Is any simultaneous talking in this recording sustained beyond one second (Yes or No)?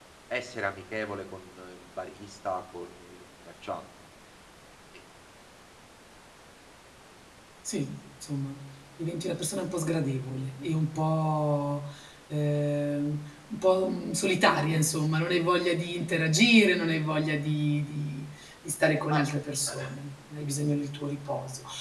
No